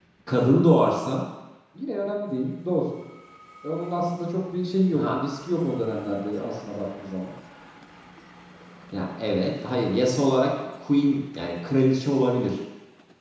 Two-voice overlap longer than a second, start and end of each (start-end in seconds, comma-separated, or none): none